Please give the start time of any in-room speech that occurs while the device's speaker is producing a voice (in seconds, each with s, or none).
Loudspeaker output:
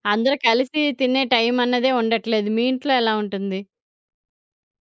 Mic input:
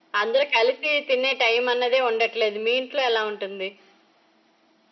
none